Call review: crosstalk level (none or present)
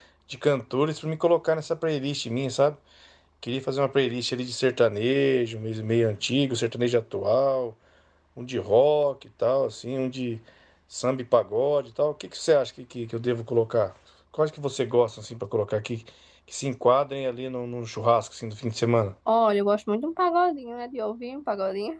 none